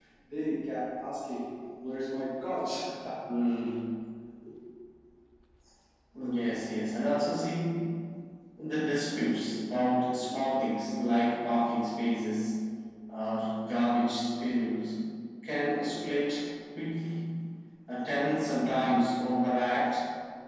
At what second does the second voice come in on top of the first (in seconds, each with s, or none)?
none